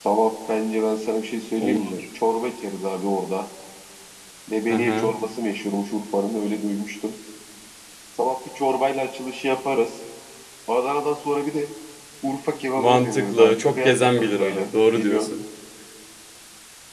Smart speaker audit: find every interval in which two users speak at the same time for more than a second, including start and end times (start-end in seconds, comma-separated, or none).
12.8-15.3